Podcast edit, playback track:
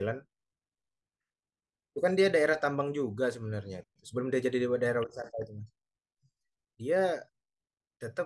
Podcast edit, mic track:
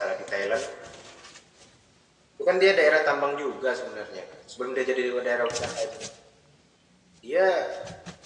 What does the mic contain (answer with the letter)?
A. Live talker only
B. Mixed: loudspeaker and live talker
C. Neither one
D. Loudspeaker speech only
D